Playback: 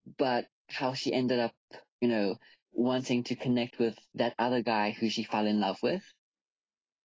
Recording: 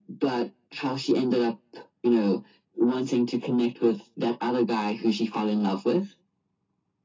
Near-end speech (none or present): none